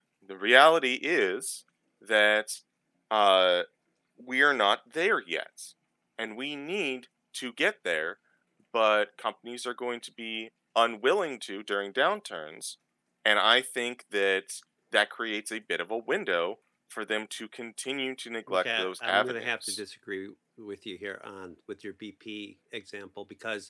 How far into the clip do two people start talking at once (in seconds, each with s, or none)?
18.5 s